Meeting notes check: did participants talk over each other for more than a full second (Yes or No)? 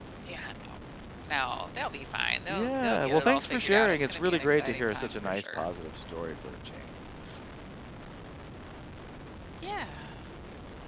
Yes